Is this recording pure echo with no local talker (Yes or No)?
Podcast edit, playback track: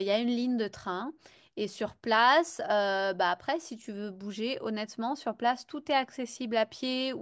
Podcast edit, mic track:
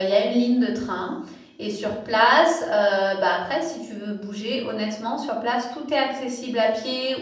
Yes